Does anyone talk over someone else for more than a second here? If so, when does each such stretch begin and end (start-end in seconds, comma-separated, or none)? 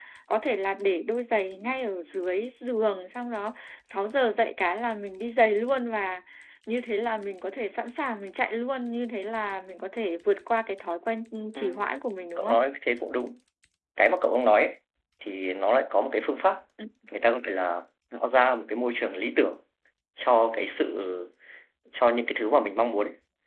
none